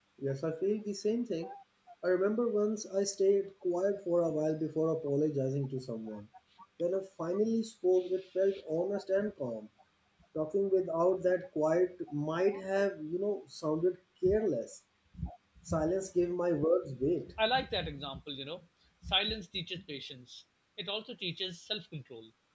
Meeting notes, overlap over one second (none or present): none